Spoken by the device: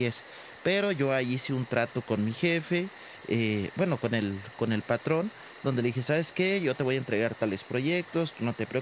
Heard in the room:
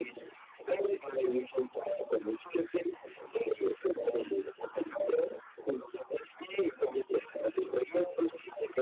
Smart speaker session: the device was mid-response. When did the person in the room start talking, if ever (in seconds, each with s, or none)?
none